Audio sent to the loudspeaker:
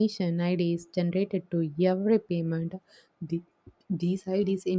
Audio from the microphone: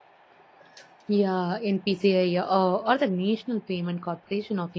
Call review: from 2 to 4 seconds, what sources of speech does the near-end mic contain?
user only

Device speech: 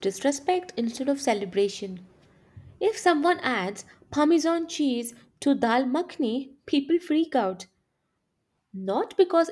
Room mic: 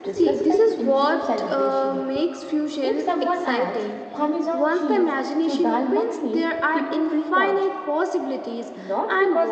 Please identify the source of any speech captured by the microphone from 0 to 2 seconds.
both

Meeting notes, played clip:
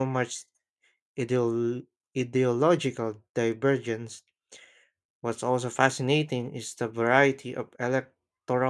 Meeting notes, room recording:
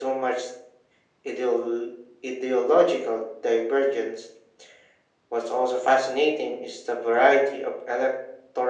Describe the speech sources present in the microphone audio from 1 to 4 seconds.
echo only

